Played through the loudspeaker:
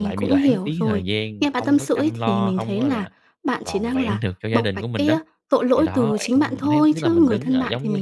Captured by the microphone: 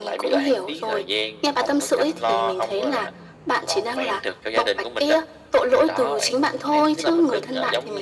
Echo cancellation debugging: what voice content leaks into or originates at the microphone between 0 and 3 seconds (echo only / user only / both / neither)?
echo only